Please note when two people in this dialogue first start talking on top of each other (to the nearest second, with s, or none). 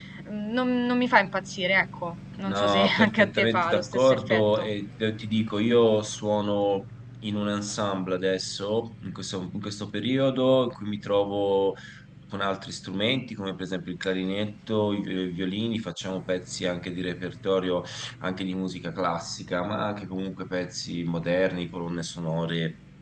2 s